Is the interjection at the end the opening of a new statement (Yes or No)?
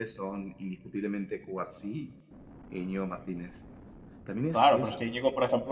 Yes